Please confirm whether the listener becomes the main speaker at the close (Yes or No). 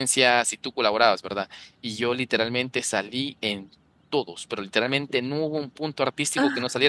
No